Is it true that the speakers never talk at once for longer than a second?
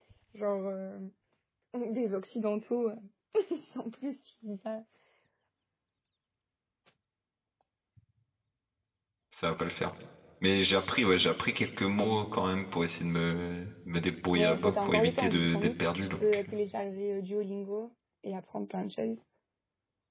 No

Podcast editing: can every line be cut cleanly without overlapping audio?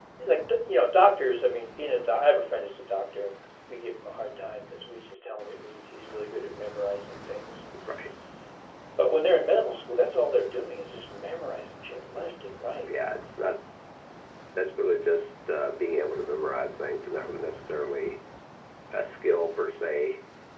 Yes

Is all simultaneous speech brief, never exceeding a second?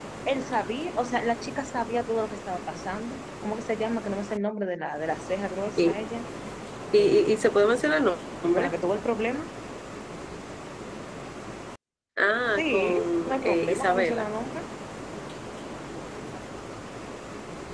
No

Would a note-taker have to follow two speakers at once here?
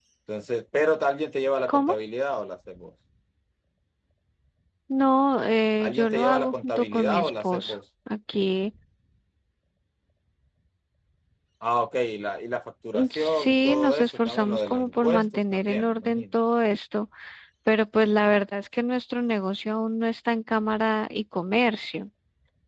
Yes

